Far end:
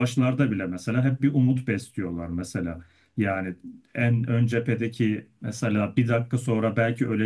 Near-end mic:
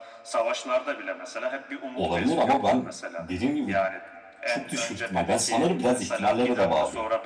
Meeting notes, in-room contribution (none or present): present